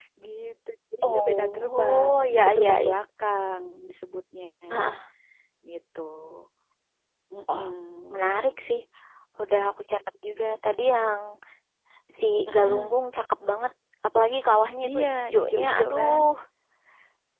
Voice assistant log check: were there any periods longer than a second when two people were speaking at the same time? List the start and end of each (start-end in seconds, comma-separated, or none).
1.1-3.0, 14.9-16.2